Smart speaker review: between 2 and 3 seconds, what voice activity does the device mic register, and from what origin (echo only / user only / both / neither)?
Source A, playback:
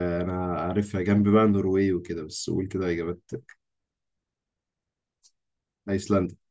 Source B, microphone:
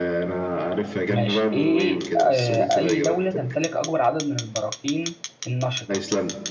both